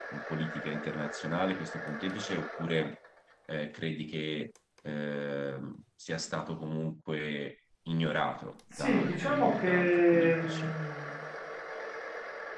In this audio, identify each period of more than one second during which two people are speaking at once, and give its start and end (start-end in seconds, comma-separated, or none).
8.7-10.8